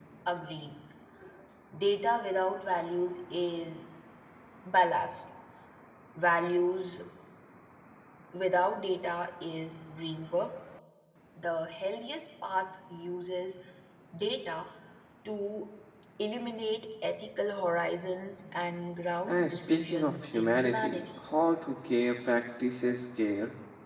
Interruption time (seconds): 19.3 s

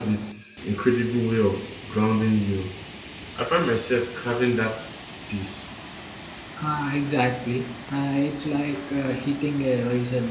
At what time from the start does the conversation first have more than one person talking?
none

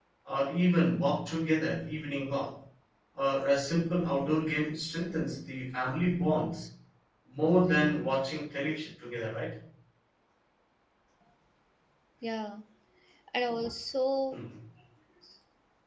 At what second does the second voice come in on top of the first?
none

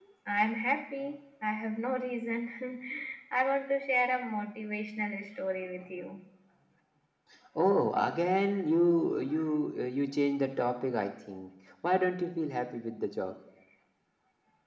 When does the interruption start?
none

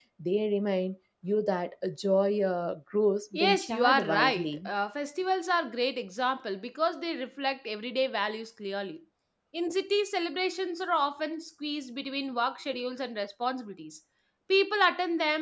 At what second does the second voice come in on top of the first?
3.3 s

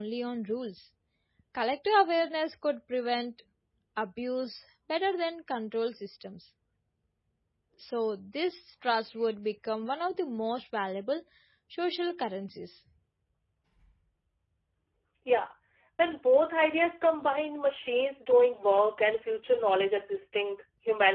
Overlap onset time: none

